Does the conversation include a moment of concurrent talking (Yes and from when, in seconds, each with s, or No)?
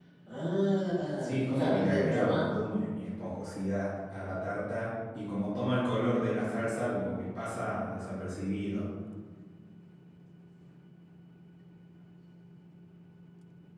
Yes, from 1.2 s